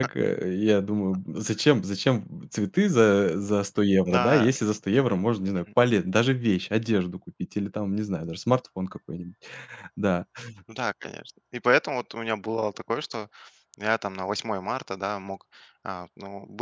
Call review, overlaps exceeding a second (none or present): none